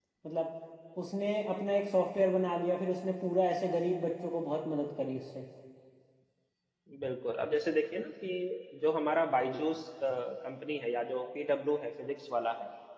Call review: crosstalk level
none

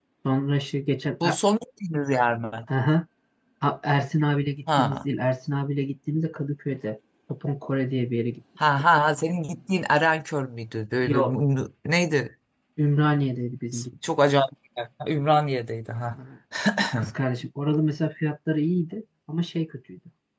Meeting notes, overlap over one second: none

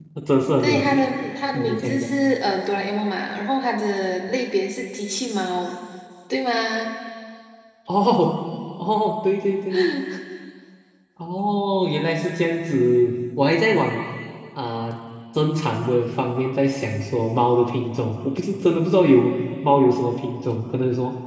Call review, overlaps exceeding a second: none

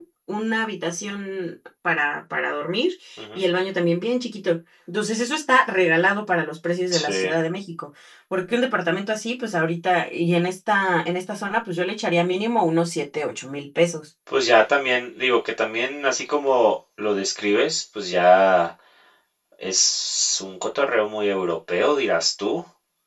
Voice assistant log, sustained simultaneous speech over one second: none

